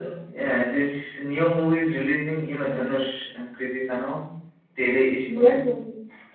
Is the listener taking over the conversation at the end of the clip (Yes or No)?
Yes